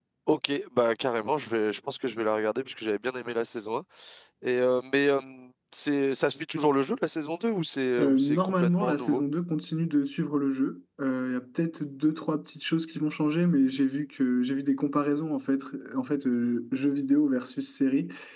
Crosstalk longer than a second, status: present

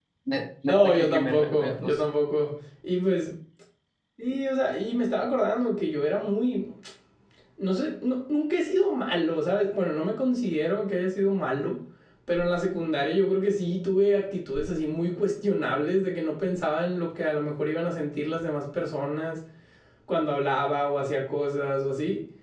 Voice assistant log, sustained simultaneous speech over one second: present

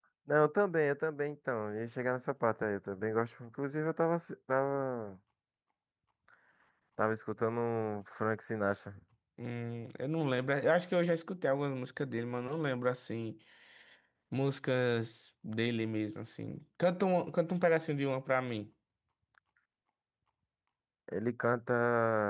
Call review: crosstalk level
none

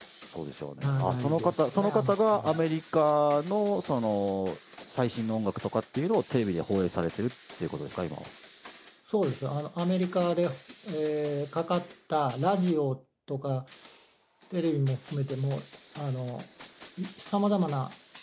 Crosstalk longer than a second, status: present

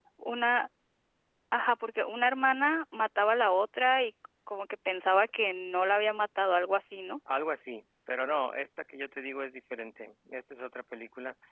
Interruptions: none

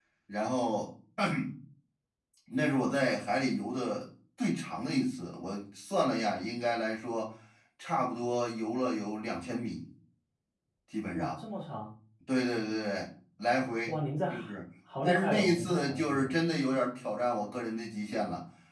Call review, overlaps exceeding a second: present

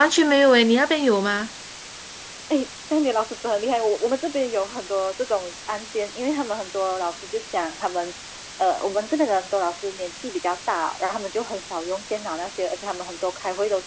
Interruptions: none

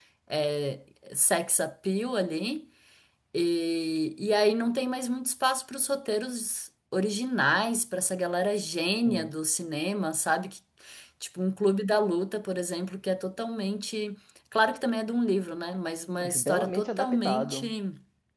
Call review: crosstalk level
present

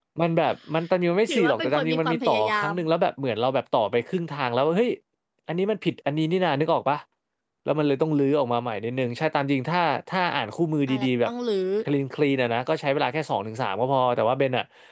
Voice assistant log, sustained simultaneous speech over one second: present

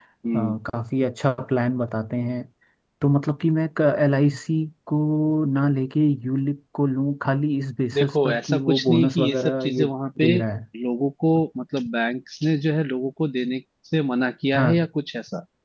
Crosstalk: present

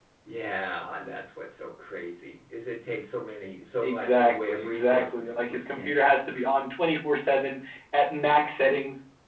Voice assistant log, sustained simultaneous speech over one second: present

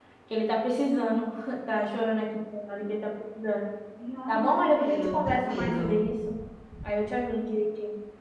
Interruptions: present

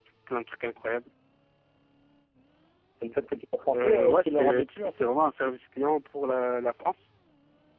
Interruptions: present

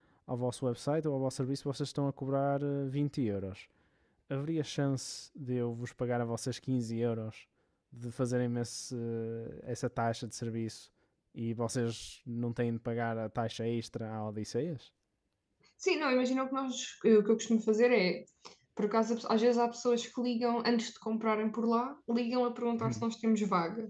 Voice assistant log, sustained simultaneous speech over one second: none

